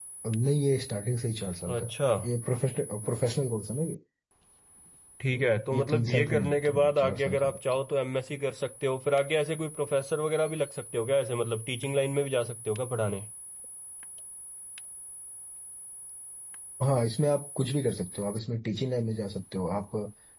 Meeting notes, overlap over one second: present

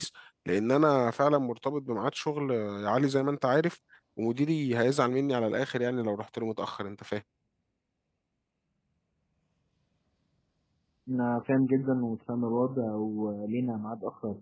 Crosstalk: none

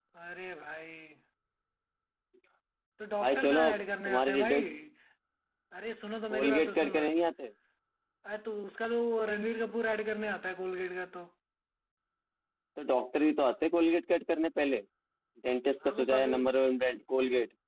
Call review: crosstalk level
present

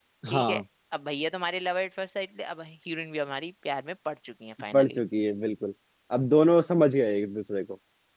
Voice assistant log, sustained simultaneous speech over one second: none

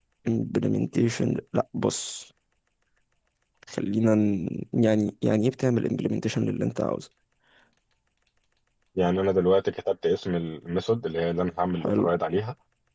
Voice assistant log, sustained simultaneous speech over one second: none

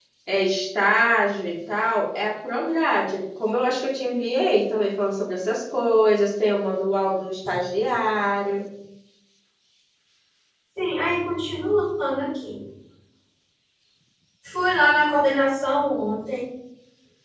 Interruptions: none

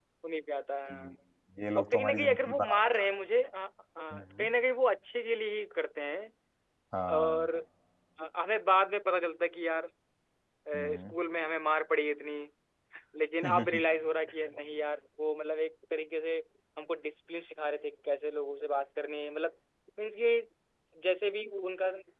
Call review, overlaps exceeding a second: present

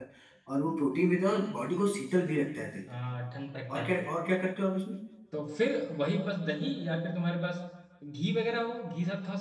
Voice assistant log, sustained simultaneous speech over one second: none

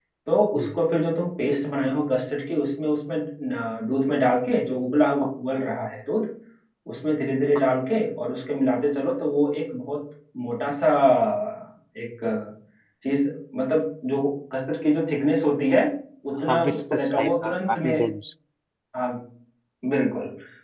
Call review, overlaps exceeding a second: present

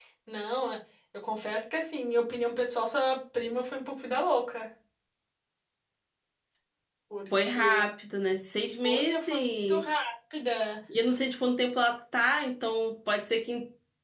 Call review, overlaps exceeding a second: present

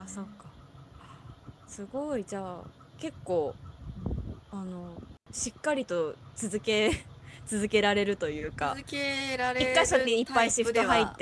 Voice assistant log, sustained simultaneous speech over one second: present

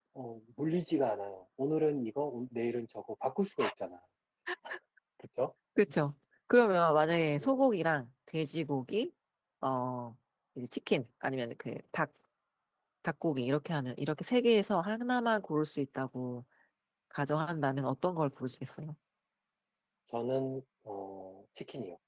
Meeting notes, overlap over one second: none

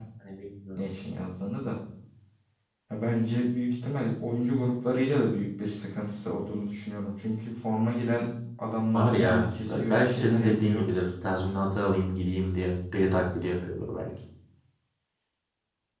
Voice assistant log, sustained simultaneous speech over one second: present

